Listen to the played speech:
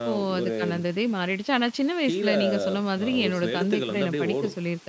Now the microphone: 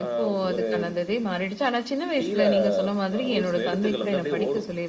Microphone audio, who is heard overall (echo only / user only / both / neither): echo only